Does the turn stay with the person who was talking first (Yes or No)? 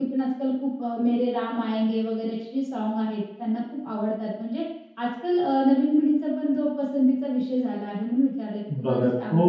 No